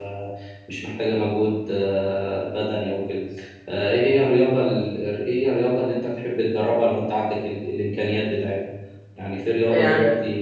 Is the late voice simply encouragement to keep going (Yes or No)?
Yes